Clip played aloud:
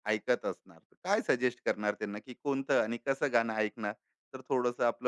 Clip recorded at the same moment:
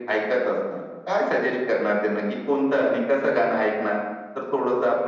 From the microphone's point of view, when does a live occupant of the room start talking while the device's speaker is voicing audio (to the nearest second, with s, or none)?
none